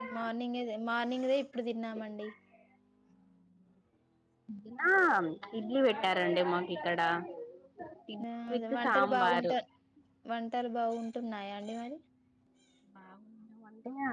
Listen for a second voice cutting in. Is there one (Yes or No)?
Yes